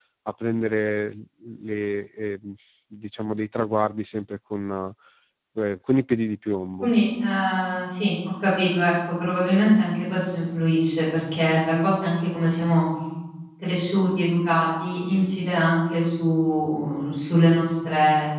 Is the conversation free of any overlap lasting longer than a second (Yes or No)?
Yes